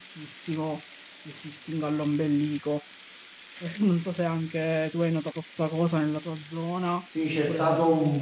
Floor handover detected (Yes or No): Yes